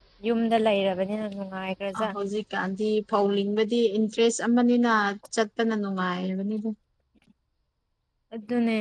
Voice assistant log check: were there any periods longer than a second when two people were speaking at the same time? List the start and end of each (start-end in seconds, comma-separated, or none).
none